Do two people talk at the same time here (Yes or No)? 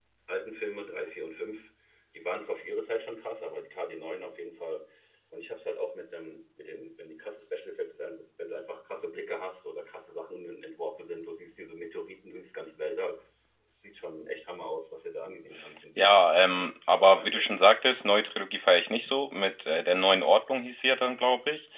Yes